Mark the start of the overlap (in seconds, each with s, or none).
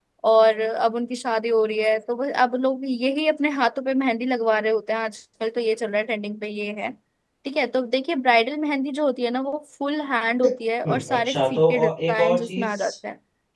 10.8 s